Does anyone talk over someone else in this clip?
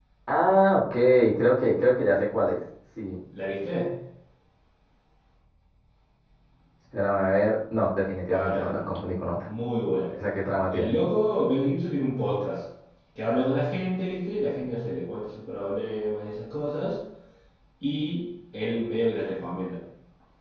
Yes, from 8.2 s

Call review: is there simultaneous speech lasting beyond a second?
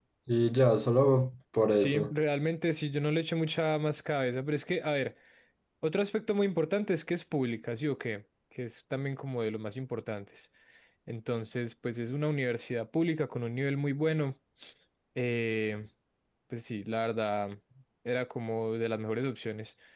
No

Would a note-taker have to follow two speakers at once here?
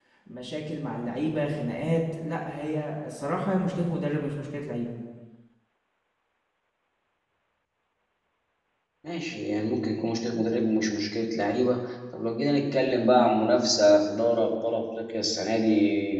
No

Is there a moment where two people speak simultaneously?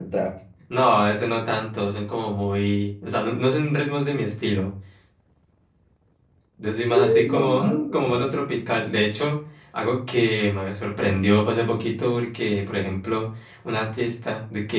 Yes, from 6.9 s

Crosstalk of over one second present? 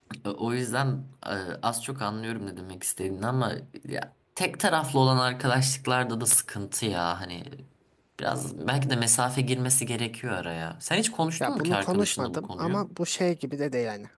Yes, from 11.4 s

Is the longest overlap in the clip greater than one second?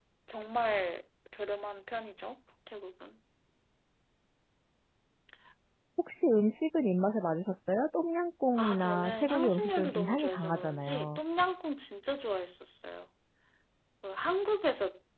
Yes, from 8.6 s

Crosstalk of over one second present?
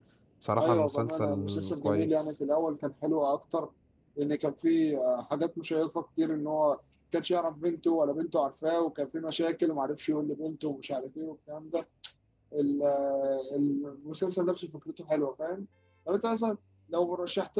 Yes, from 0.6 s

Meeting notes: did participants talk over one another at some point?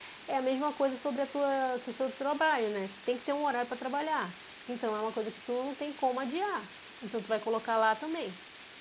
No

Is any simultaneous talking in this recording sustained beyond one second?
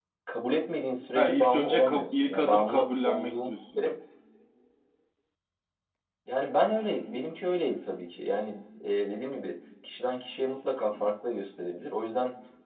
Yes, from 1.1 s

